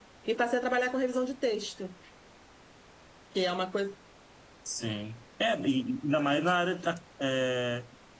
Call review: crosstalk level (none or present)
none